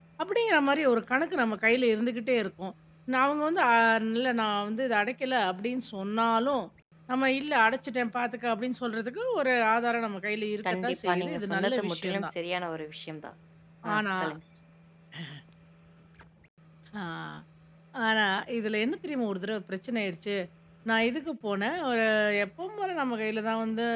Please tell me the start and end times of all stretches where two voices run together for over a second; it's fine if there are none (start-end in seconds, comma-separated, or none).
10.7-12.3